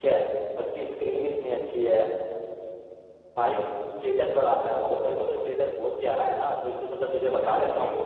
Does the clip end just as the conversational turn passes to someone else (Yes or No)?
Yes